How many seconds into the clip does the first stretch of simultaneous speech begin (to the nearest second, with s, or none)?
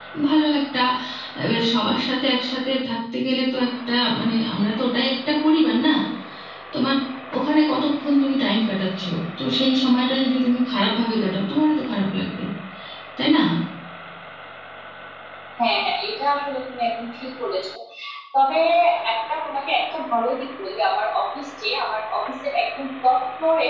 none